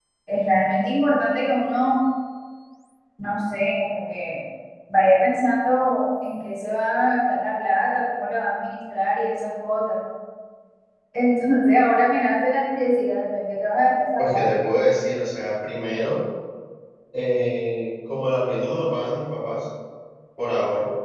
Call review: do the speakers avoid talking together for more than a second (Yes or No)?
Yes